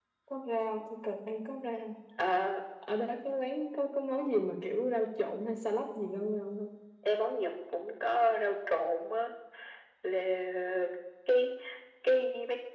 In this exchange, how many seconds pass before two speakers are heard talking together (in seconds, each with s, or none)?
none